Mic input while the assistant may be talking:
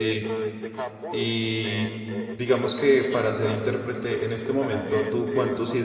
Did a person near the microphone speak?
Yes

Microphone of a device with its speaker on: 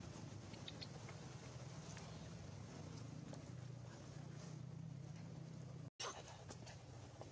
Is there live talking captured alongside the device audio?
No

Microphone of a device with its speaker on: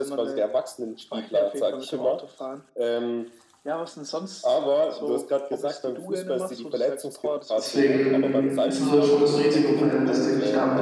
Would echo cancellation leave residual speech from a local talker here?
Yes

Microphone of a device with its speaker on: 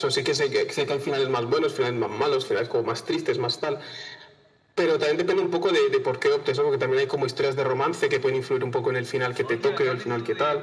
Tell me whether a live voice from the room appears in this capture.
Yes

